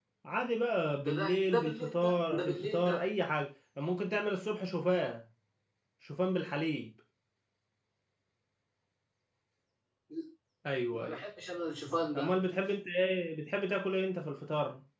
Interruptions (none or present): present